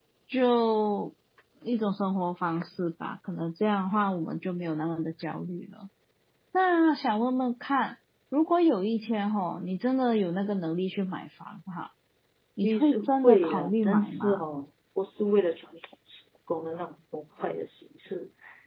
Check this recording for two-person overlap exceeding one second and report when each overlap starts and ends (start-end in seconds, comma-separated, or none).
12.6-14.4